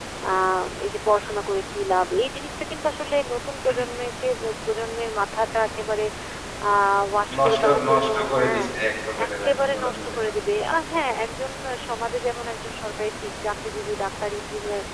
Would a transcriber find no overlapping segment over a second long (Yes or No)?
No